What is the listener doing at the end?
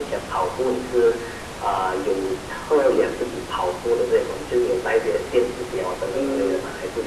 taking over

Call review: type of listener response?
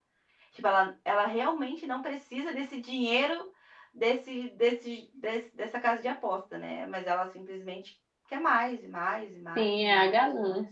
taking over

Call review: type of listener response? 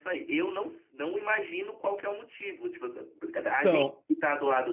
listening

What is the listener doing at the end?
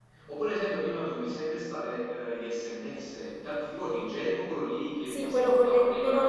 taking over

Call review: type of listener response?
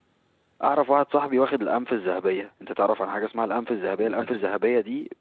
listening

